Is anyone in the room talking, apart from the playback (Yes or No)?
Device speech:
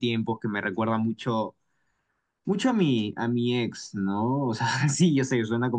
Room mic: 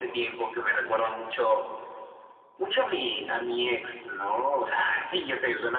No